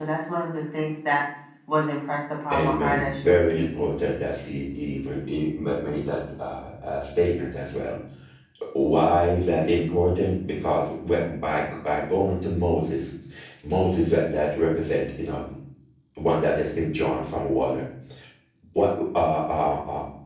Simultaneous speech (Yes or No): Yes